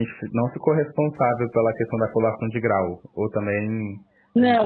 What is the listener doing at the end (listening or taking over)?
taking over